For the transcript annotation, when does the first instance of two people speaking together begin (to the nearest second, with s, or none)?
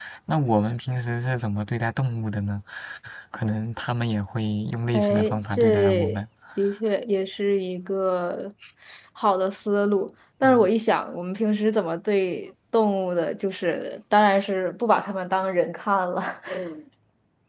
5 s